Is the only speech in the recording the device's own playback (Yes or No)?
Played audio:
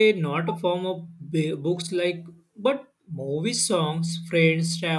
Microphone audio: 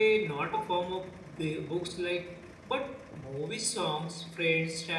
Yes